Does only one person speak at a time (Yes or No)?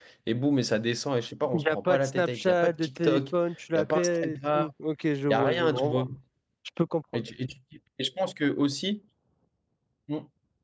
No